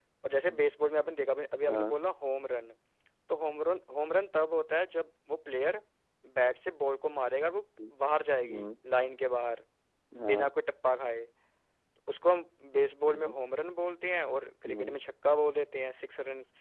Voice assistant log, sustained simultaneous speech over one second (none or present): none